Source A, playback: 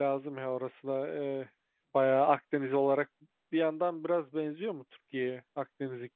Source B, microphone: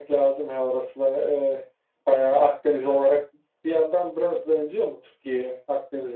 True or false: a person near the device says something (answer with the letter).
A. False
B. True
A